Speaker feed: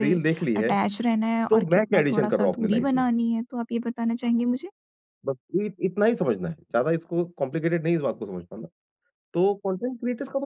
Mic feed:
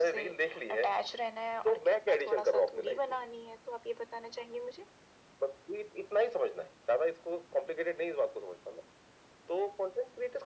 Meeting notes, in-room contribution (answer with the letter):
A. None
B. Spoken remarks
A